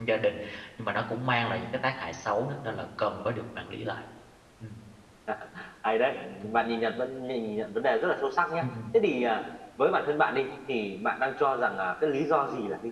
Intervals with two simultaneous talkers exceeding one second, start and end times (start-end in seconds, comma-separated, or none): none